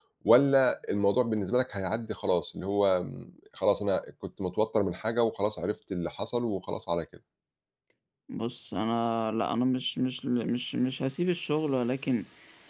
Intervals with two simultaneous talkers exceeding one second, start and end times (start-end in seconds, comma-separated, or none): none